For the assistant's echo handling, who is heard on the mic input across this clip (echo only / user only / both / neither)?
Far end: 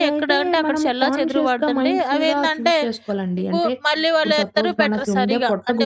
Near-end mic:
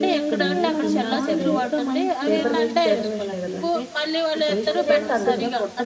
both